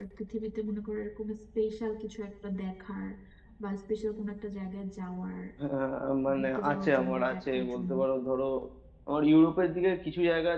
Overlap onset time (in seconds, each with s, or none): 6.3 s